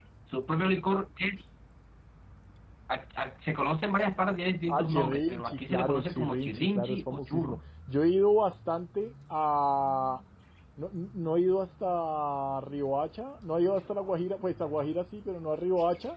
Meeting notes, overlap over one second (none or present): present